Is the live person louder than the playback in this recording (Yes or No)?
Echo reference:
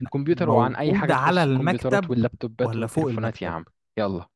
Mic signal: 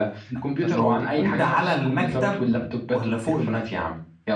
No